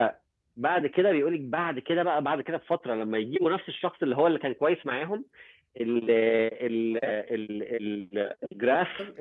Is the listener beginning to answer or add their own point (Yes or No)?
No